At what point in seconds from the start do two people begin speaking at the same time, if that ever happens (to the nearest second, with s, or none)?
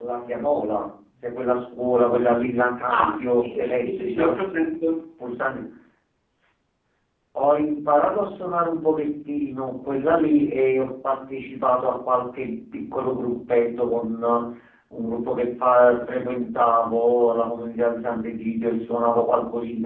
3 s